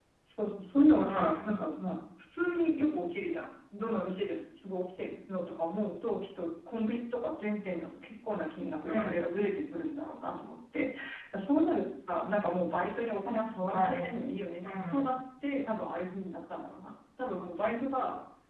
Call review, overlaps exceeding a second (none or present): none